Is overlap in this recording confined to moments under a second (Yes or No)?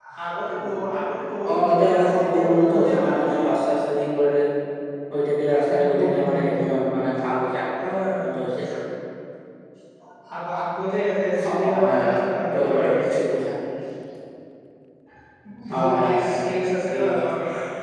No